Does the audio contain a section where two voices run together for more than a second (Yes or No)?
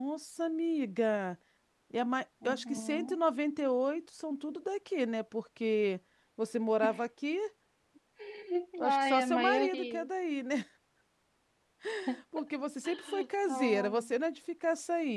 Yes